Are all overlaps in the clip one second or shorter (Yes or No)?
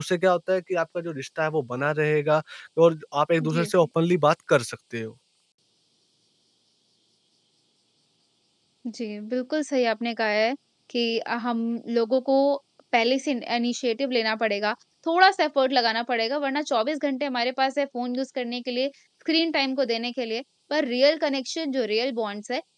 Yes